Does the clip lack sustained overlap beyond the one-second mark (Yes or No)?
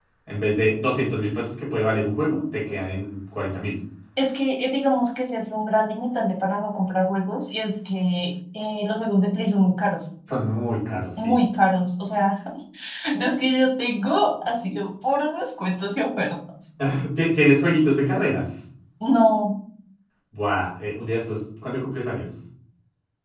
Yes